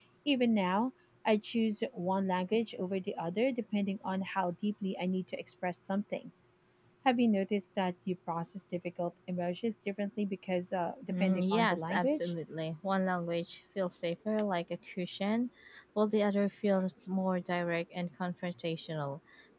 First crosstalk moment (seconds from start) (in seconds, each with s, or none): 11.1 s